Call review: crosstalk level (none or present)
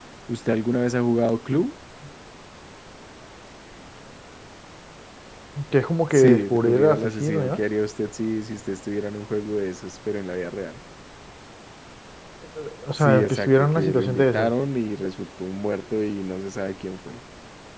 present